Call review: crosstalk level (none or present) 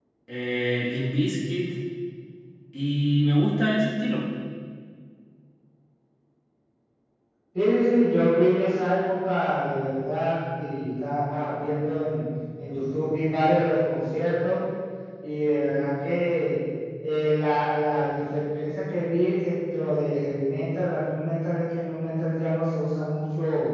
none